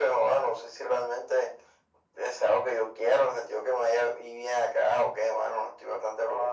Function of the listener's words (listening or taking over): taking over